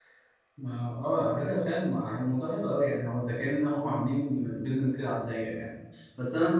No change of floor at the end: Yes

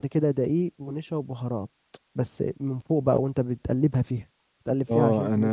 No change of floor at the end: No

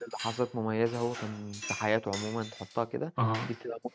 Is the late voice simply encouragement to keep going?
Yes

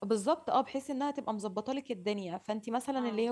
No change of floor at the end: Yes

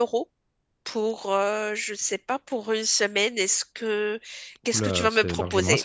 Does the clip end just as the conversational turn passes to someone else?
Yes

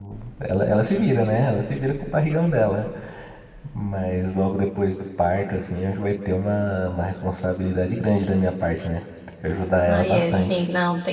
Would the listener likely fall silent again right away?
No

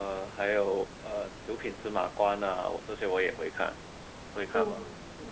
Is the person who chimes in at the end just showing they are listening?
No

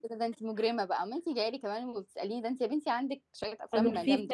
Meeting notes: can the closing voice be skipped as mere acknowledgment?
No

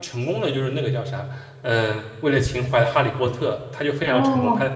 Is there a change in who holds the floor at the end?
Yes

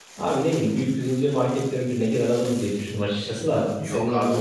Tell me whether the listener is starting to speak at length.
Yes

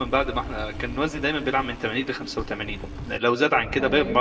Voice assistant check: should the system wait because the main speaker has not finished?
Yes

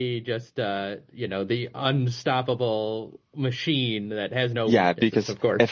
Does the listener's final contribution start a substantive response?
Yes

